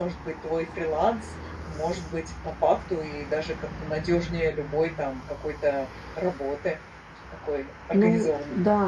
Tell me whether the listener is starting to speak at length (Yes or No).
Yes